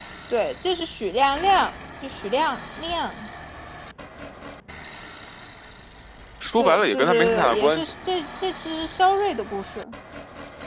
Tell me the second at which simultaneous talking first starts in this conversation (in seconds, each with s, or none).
6.6 s